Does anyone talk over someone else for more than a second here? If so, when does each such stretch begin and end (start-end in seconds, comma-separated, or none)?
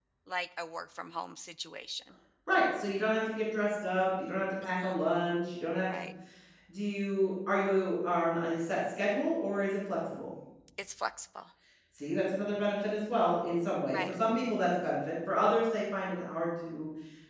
none